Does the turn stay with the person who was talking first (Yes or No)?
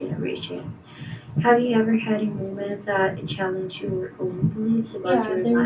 No